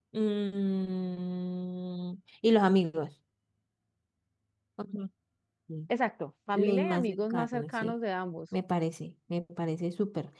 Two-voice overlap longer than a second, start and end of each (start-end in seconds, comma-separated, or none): 6.5-7.9